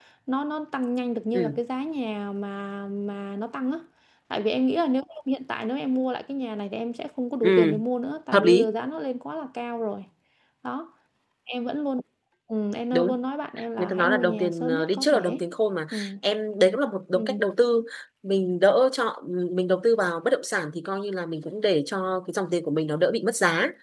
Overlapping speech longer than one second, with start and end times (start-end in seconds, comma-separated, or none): 13.8-15.4